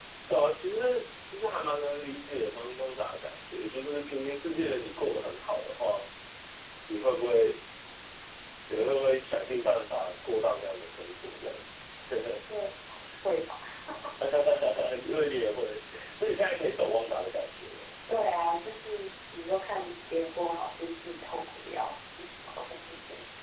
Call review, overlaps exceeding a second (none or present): none